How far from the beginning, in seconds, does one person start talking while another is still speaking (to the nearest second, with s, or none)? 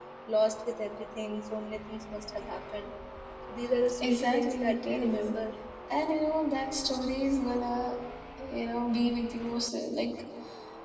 4 s